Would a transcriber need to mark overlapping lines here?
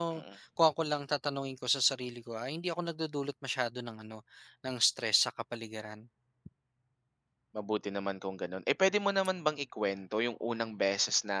No

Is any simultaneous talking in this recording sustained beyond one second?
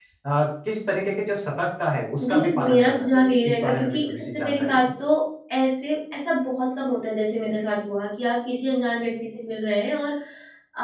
Yes, from 2.2 s

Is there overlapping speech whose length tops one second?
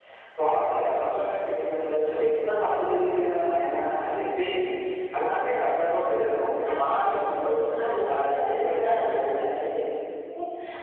Yes, from 6.6 s

